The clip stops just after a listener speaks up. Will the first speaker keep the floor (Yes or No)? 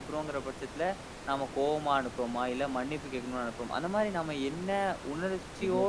Yes